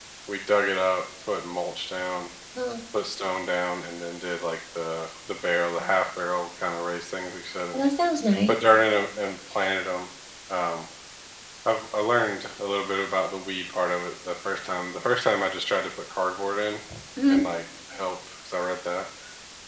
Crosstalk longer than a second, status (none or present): none